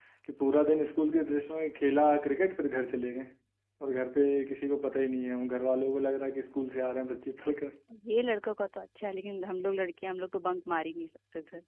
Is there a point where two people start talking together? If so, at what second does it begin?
none

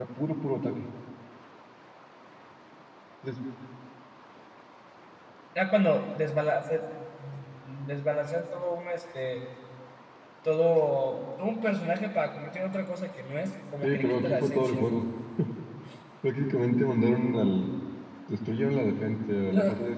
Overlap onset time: 13.8 s

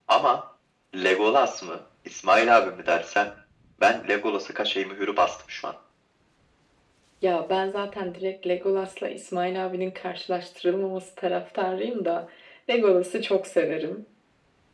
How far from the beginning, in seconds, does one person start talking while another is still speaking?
none

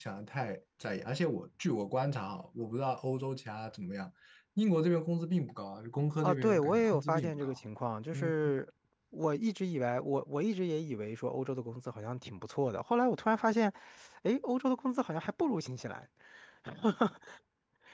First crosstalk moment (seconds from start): 6.2 s

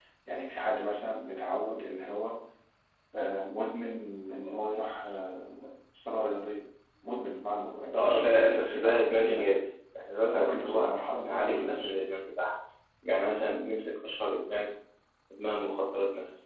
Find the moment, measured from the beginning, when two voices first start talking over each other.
7.9 s

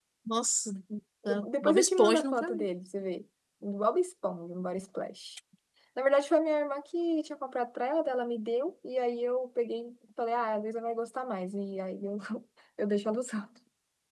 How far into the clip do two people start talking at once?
1.2 s

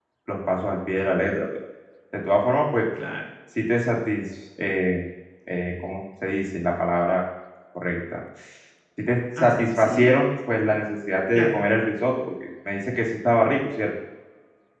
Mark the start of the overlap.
9.4 s

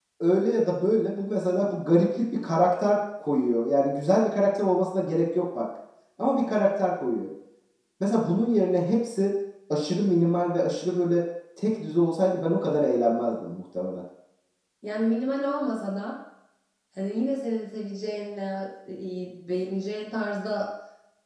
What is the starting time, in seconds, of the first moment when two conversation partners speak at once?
none

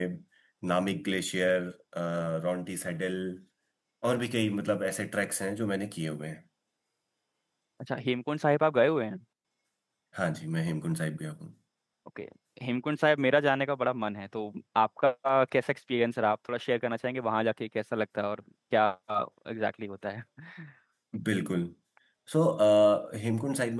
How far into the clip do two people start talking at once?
none

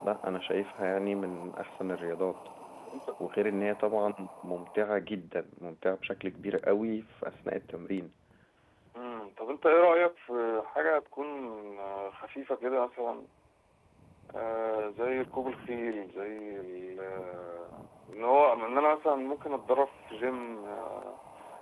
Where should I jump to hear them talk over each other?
none

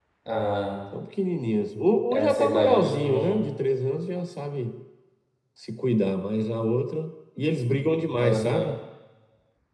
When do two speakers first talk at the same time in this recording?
2.1 s

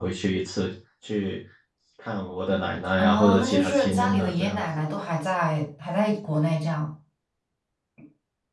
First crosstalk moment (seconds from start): 3.0 s

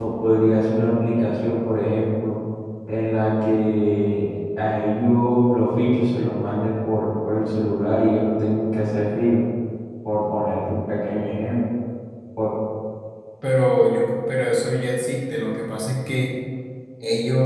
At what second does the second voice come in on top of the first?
none

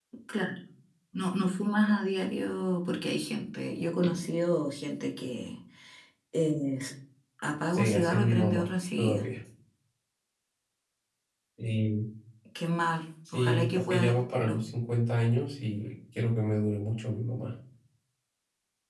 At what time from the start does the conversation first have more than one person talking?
7.7 s

